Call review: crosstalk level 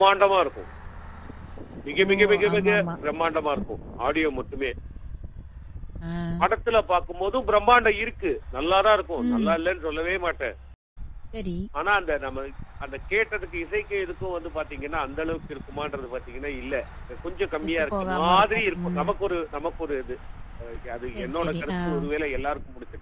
present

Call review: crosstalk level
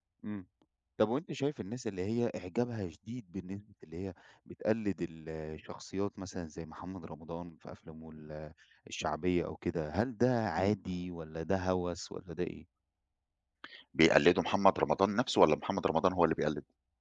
none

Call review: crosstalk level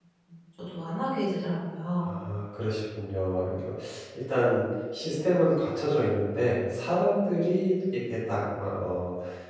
none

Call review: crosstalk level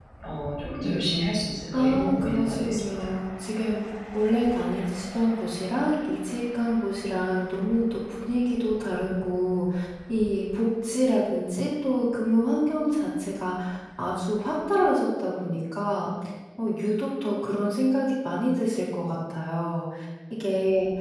present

